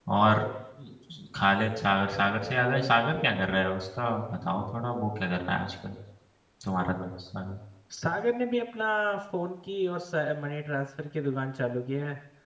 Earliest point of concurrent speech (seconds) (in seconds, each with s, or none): none